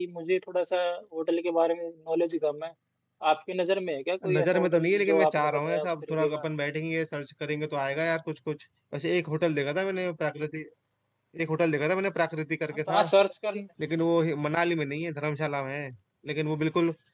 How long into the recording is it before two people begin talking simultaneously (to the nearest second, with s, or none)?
4 s